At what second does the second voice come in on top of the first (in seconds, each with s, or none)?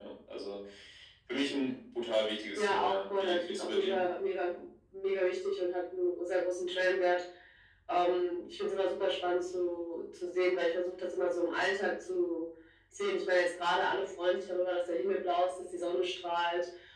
2.6 s